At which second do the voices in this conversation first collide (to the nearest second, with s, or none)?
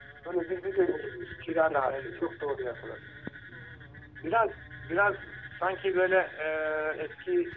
1 s